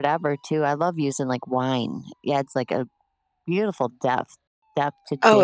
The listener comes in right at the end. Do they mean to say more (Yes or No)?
Yes